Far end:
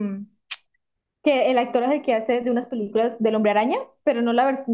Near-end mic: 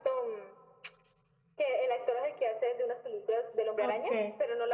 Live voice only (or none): Ok.